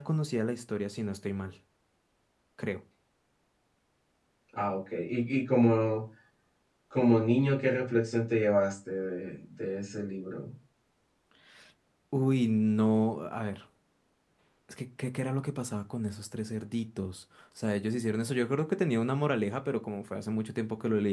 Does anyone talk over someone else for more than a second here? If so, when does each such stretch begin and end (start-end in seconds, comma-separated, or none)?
none